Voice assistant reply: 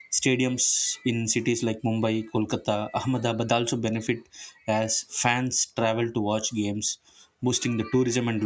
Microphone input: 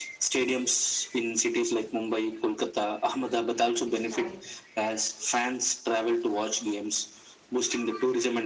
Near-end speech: present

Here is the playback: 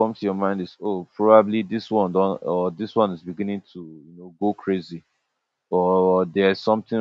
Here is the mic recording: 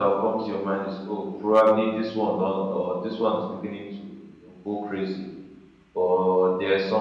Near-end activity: none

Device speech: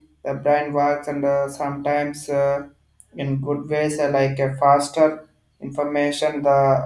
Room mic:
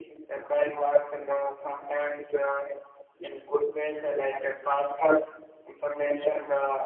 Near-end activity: none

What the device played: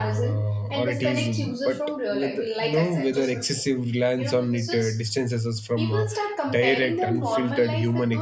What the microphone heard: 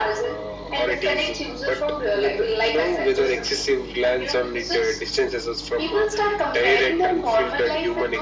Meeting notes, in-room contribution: none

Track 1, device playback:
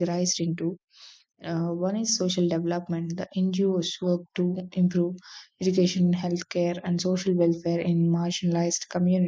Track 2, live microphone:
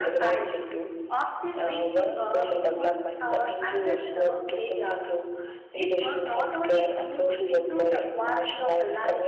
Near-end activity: present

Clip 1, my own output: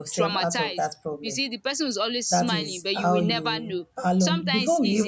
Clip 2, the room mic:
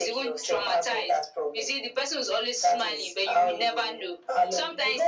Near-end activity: none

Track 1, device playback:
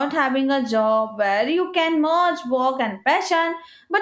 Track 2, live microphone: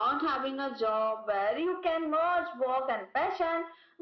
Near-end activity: none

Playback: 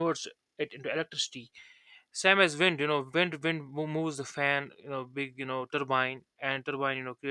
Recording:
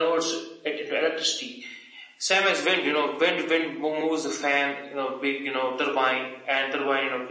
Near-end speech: none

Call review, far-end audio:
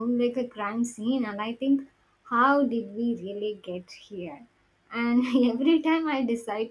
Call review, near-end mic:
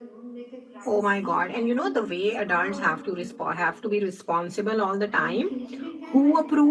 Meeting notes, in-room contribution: present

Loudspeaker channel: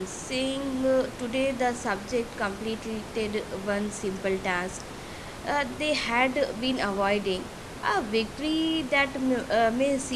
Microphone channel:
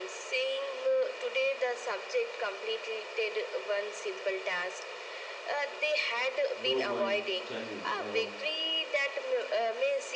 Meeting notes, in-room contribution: present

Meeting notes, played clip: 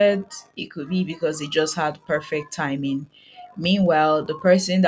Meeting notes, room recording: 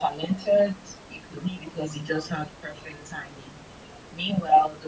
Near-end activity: none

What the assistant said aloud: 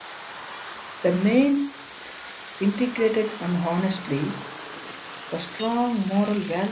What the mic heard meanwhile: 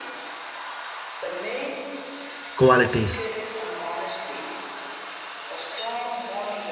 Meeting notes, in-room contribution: present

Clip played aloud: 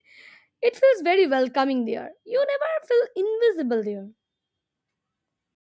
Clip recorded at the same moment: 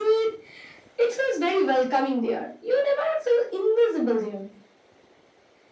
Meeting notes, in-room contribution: none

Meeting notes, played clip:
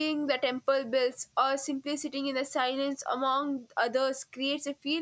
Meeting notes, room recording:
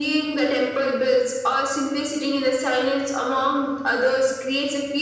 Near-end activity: none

